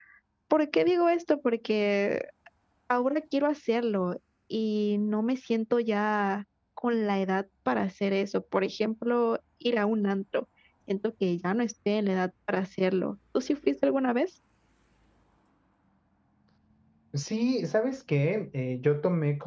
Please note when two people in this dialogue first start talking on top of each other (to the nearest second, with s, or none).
none